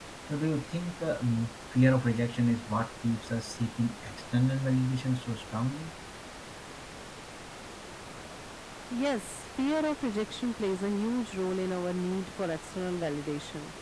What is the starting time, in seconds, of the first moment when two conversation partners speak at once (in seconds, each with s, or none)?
none